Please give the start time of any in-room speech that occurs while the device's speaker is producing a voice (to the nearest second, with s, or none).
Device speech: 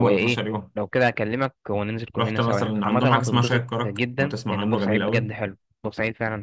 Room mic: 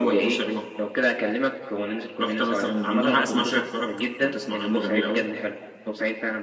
3 s